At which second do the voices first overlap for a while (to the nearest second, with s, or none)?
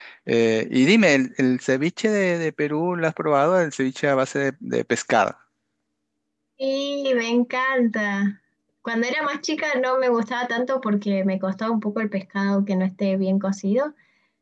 none